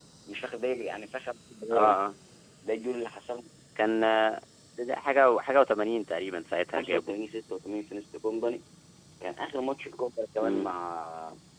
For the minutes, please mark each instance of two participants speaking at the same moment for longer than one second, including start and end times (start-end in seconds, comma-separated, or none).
none